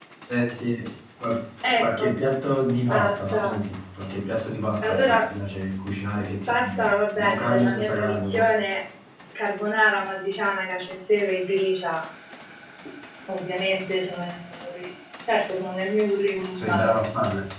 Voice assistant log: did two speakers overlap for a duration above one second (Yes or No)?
Yes